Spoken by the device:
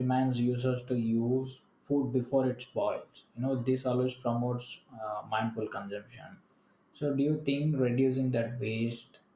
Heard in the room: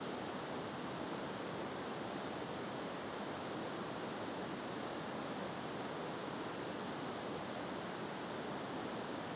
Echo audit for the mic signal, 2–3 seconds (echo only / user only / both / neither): neither